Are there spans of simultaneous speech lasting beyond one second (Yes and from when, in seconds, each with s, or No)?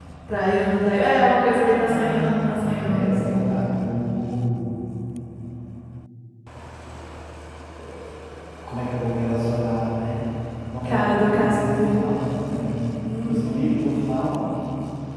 Yes, from 1.8 s